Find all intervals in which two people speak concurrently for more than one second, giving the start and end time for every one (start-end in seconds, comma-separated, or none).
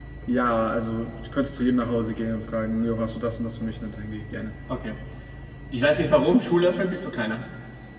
none